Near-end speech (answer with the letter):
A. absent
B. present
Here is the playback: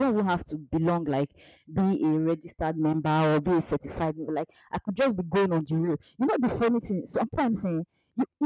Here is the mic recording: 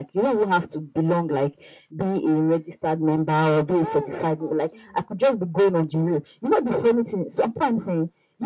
B